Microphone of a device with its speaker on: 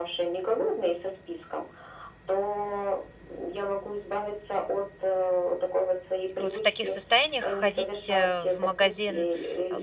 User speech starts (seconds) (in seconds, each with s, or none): 6.4 s